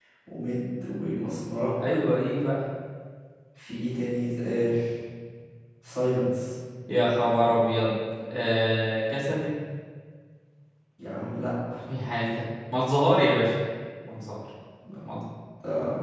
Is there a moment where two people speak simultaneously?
No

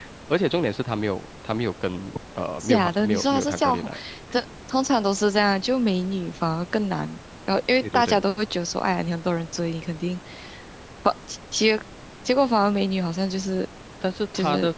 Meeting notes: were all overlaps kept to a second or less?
No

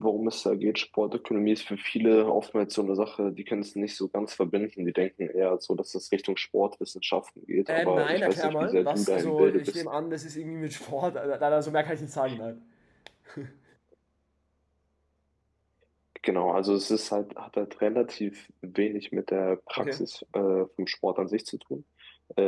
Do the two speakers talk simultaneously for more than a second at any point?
Yes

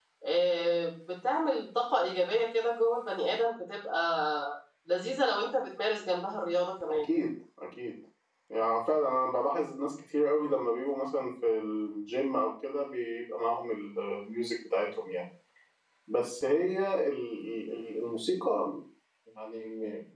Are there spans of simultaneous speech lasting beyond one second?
No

